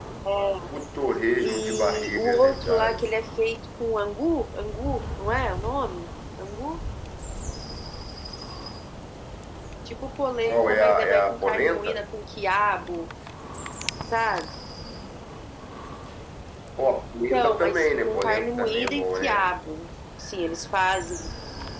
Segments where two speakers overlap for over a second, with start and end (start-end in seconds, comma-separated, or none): 1.4-3.1, 10.5-11.9, 17.3-19.5